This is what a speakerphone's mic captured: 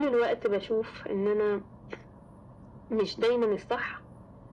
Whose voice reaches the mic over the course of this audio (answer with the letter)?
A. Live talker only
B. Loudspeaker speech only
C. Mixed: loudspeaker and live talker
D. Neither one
B